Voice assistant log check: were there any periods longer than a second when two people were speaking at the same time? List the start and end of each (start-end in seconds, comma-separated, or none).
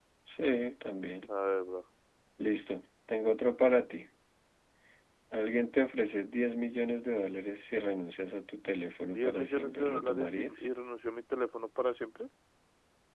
9.0-10.7